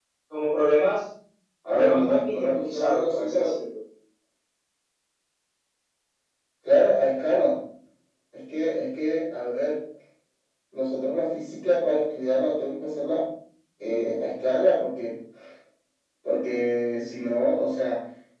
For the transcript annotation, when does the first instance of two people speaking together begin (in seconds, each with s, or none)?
1.7 s